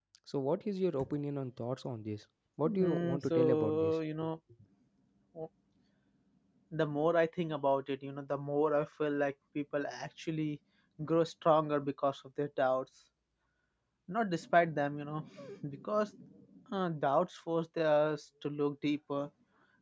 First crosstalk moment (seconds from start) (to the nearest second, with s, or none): 3 s